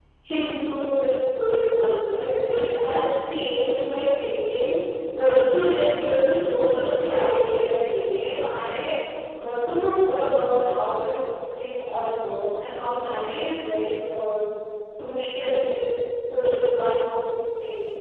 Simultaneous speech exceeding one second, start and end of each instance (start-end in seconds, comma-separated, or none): 6.9-8.5